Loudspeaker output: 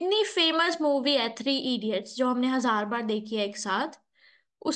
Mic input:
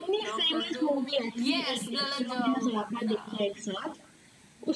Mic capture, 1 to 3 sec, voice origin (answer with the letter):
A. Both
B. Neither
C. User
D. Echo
A